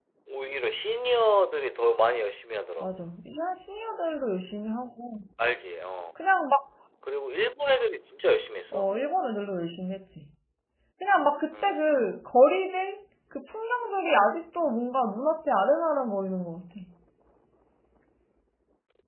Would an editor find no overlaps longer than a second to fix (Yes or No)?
Yes